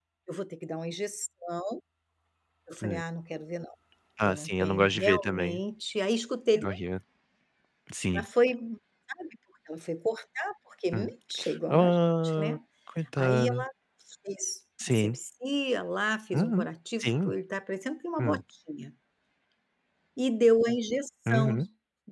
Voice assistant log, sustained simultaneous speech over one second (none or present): present